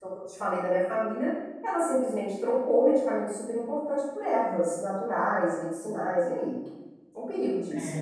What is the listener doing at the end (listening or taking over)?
taking over